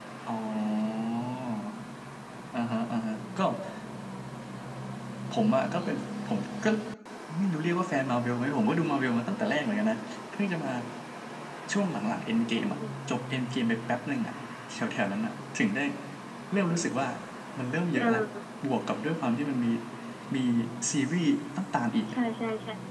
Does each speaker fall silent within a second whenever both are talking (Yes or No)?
Yes